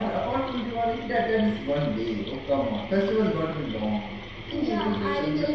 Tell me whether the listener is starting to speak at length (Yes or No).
Yes